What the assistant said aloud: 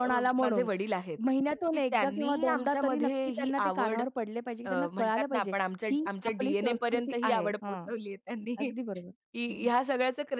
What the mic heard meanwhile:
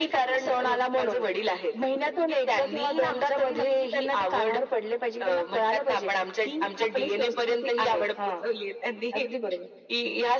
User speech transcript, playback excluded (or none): none